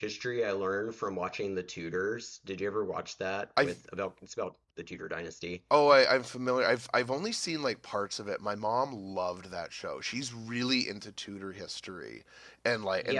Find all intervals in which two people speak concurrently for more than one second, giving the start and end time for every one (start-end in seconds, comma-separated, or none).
none